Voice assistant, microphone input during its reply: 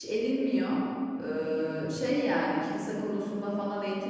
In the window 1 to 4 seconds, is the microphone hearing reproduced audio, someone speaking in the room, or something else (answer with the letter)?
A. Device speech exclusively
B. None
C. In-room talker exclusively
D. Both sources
C